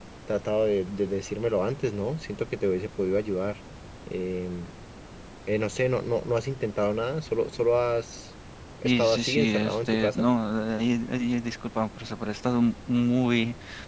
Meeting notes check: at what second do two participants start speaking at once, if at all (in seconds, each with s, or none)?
8.8 s